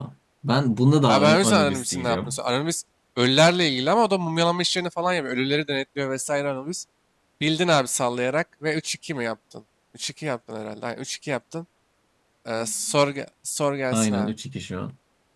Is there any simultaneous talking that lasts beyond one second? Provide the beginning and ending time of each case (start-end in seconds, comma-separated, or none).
1.1-2.3